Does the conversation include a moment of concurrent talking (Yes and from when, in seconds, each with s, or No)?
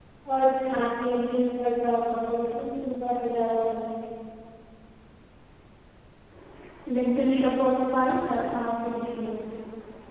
No